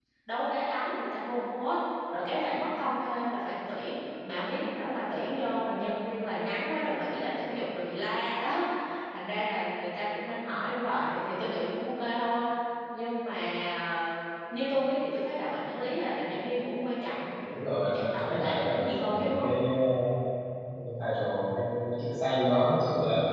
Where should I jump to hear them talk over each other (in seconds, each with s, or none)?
17.8 s